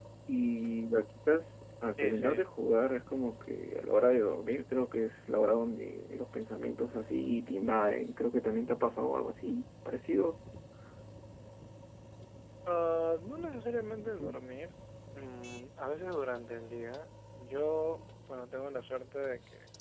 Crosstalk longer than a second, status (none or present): none